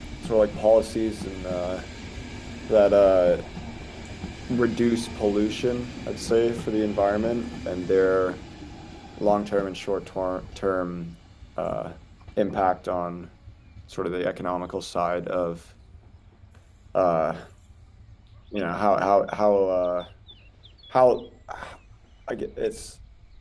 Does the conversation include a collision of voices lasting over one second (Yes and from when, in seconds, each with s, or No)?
No